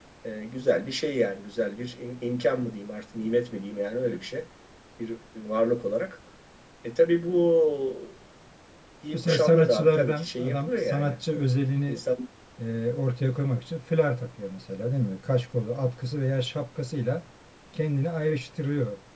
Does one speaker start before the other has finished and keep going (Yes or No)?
Yes